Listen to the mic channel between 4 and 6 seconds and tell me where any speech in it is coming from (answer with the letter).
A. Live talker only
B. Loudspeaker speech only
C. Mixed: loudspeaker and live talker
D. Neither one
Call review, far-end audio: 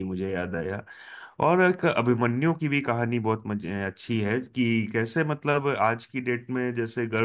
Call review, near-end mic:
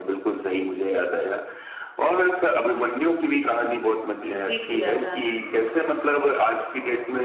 C